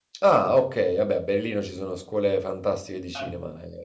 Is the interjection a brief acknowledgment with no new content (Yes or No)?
Yes